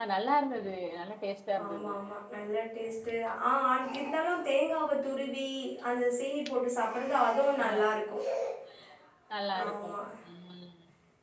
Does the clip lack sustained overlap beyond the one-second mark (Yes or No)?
Yes